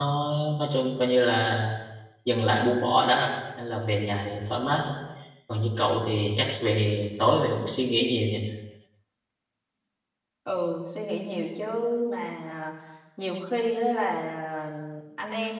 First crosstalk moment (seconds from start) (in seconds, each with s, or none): none